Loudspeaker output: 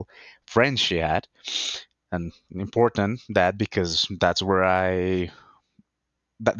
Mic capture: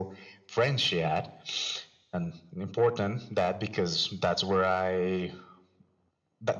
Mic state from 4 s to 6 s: echo only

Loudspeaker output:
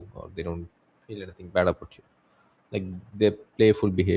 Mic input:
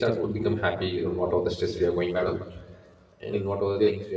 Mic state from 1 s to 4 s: both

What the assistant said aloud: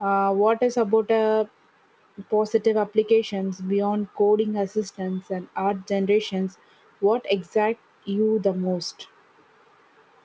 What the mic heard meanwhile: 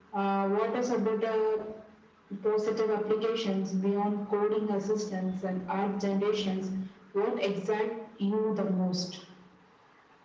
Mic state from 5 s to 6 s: echo only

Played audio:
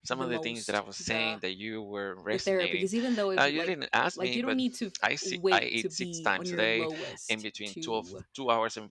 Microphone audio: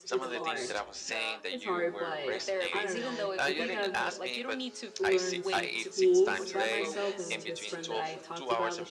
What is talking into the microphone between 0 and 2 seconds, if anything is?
both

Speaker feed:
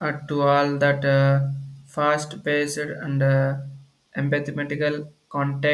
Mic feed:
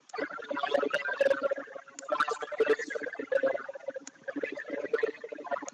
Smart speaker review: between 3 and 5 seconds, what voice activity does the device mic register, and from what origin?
echo only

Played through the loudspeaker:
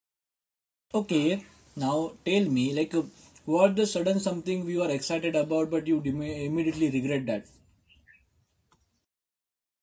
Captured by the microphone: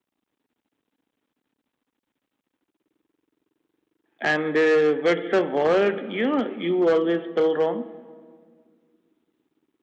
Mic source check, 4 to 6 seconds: user only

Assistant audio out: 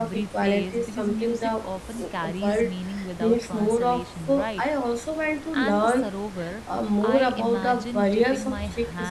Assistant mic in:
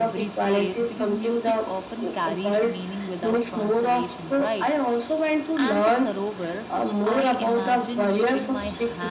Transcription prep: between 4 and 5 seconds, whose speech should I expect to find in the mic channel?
echo only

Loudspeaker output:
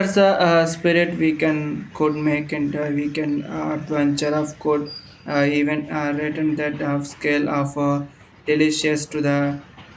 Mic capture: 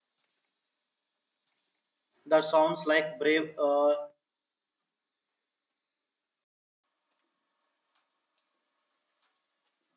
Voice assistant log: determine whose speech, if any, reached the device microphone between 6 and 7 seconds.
neither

